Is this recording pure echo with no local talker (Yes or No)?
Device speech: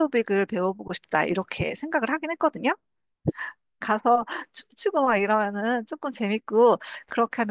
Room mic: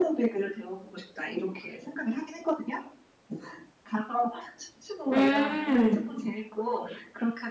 No